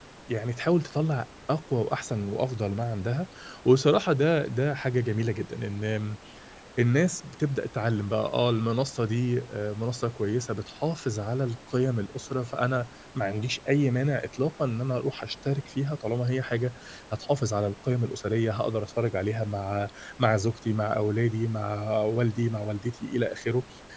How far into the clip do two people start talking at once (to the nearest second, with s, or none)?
none